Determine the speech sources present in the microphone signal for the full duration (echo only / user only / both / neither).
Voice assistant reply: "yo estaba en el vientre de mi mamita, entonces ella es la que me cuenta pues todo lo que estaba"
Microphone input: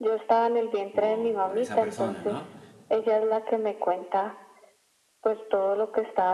both